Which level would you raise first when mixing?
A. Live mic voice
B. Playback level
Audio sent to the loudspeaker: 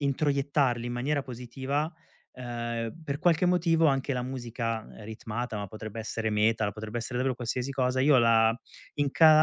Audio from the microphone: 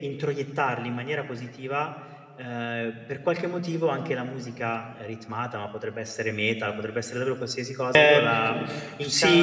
B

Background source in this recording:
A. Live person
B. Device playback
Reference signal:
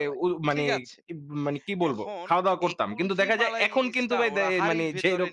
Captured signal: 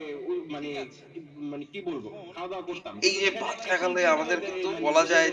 B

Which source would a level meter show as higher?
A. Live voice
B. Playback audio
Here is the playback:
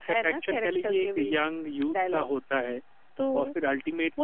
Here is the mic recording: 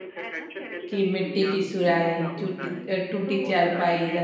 A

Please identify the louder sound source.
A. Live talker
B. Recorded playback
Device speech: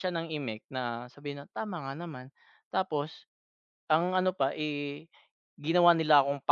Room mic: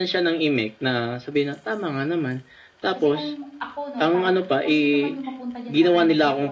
B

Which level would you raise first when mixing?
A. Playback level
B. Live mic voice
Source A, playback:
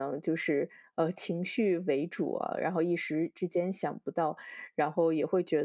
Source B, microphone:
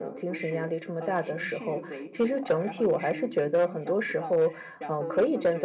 A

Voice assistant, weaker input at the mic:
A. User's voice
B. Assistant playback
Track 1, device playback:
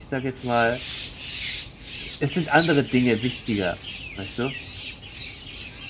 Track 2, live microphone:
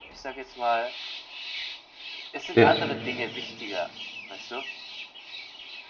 B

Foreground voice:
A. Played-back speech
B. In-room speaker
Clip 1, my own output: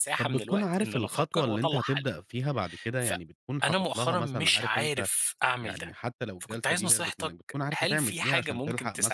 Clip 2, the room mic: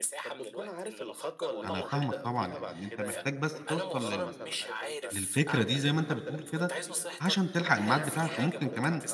B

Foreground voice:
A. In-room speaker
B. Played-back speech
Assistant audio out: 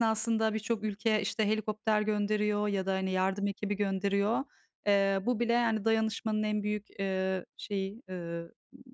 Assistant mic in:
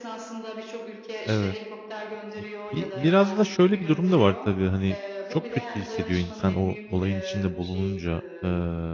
A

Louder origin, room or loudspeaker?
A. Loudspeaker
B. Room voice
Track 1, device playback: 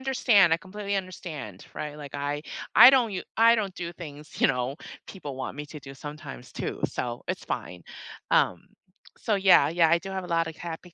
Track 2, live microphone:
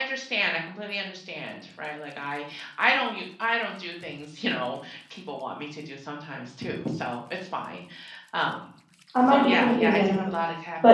B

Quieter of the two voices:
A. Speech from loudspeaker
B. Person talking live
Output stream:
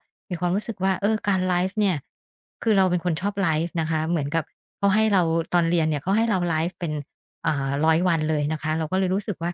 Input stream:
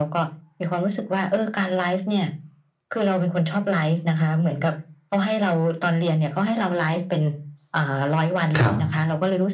A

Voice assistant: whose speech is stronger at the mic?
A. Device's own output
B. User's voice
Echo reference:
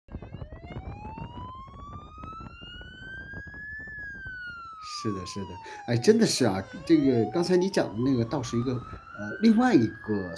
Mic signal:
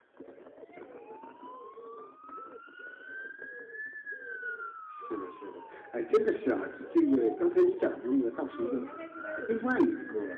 A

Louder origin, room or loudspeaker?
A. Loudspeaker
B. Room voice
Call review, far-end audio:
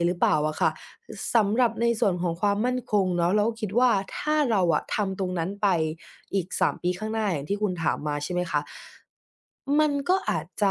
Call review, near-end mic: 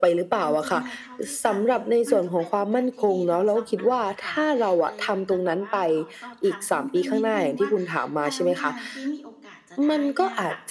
A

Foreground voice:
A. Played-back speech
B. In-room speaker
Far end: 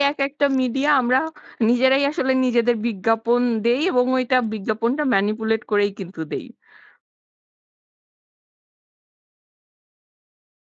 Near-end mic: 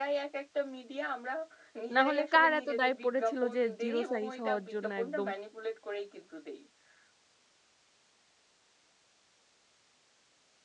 B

